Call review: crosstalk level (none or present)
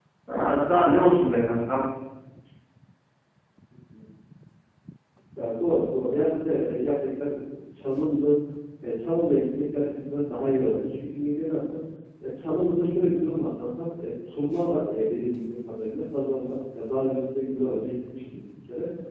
none